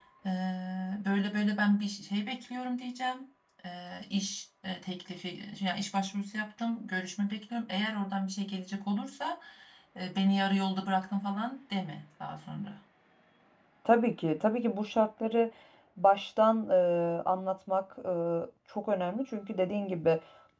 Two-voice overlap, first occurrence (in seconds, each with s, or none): none